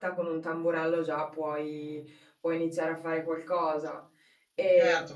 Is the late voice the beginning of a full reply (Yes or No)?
Yes